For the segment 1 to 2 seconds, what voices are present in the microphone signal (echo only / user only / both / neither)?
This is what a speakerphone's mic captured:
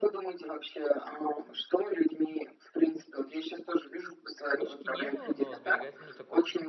echo only